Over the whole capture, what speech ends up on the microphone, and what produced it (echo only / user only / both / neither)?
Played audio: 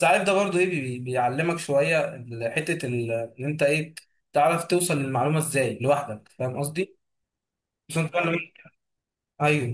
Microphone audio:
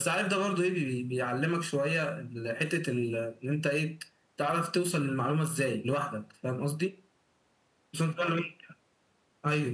echo only